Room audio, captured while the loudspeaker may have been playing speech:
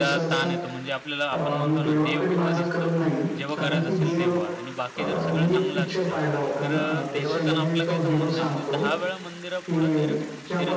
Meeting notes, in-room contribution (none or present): present